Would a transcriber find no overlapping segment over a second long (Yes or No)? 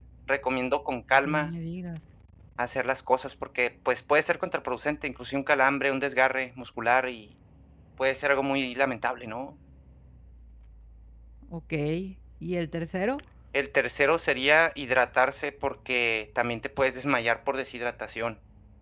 Yes